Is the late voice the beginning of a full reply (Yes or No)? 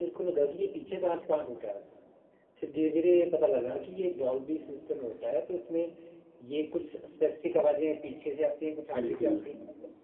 No